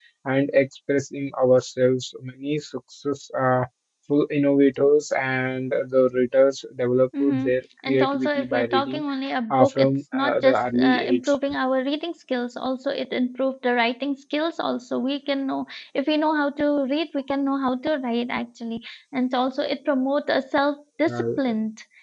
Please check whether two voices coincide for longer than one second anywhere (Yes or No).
Yes